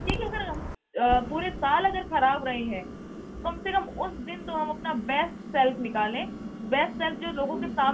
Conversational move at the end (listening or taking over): taking over